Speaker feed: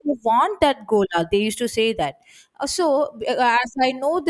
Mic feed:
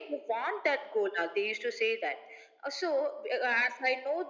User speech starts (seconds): none

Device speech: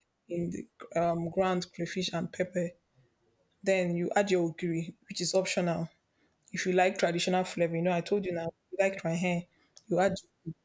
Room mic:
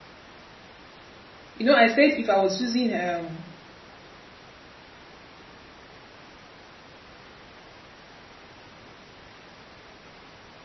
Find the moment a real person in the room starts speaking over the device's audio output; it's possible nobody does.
2 s

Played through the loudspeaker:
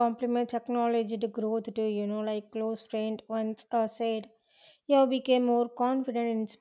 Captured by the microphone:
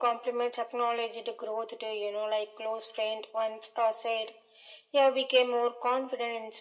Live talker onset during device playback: none

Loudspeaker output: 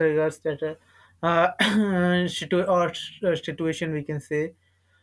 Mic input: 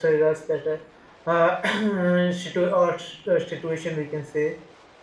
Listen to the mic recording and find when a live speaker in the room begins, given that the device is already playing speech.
none

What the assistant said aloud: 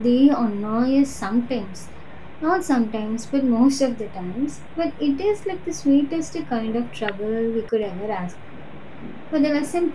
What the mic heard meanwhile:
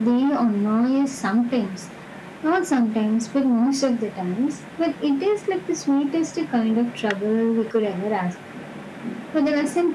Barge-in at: none

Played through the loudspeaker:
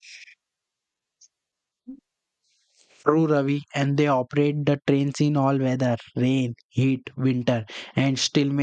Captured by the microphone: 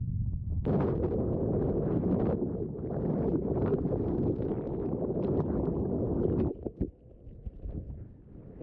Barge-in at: none

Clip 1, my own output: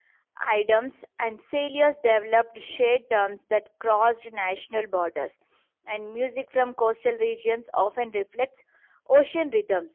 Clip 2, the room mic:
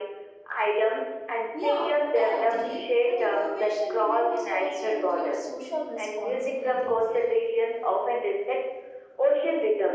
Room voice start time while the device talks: 2 s

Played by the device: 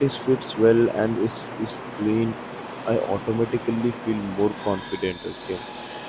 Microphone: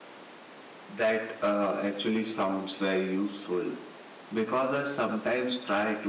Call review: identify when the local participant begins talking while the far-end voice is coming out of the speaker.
1 s

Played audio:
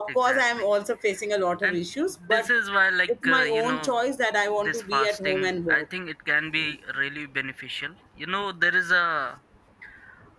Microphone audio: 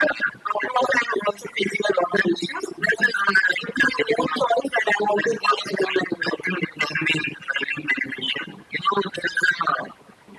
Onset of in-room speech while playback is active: none

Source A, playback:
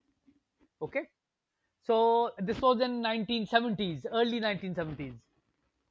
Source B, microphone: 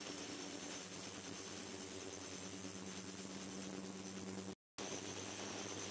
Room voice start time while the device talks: none

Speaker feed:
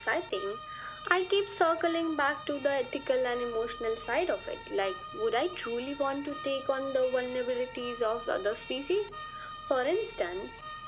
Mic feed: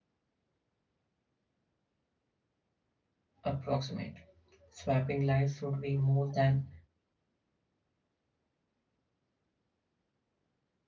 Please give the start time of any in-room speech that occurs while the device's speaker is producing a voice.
3 s

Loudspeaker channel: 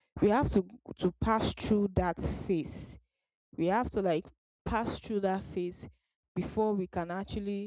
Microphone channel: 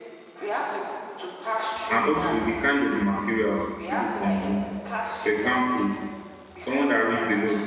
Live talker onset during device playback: 2 s

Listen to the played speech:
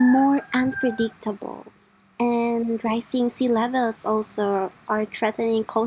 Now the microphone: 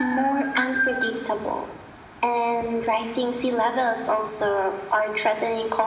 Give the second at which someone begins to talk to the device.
none

